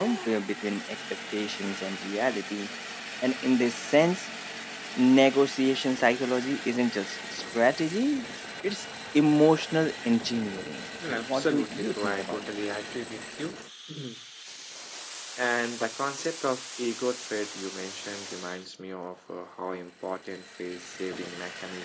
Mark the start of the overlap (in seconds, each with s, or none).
11.0 s